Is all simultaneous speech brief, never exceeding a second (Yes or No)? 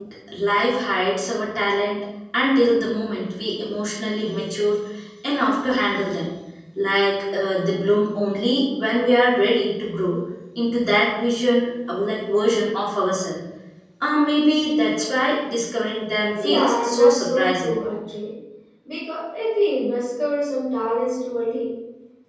No